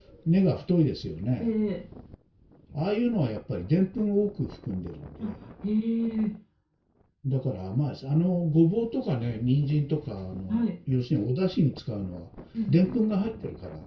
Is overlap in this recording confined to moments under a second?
Yes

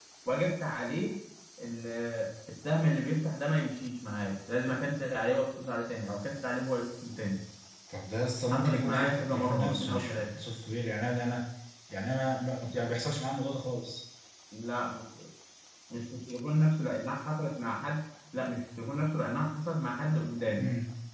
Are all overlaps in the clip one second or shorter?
No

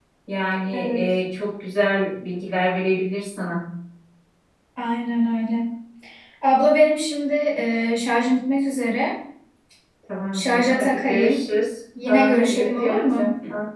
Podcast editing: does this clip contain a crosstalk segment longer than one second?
Yes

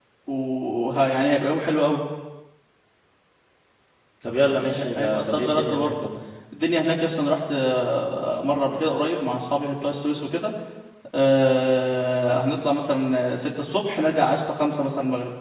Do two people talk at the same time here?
Yes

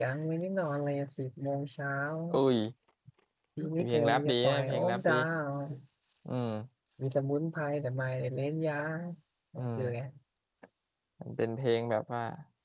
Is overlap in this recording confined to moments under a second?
No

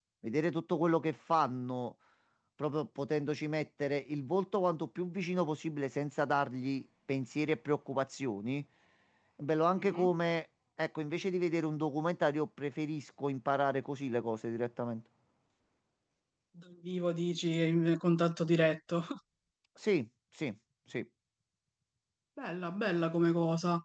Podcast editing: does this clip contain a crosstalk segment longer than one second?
No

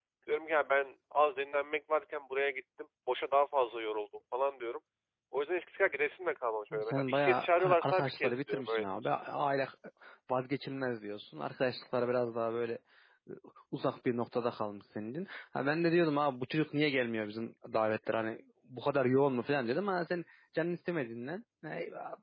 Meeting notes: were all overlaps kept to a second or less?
No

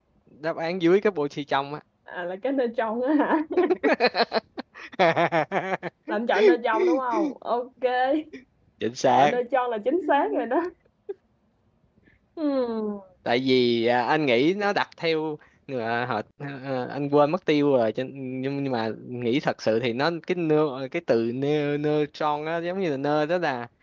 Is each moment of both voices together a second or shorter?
Yes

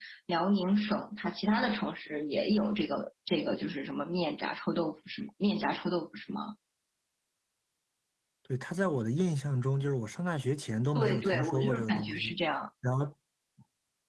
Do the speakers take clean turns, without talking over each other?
No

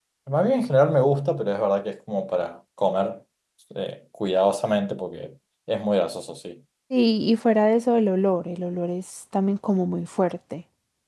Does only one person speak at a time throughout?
Yes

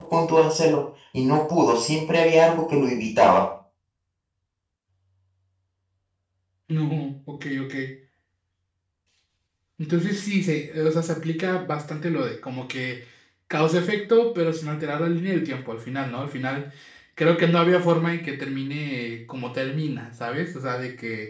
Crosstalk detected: No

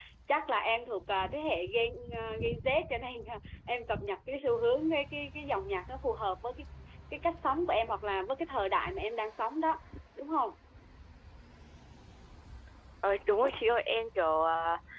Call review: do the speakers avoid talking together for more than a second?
Yes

